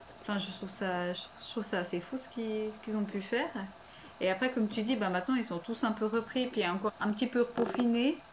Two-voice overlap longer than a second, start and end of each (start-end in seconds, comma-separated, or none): none